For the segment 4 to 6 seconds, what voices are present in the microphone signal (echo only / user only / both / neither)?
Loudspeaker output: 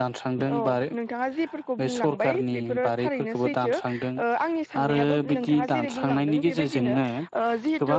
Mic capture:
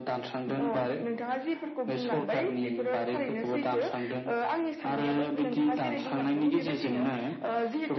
echo only